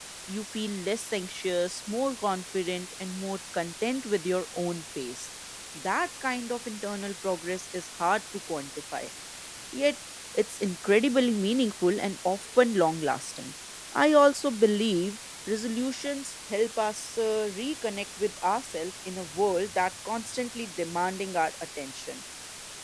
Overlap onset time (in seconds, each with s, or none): none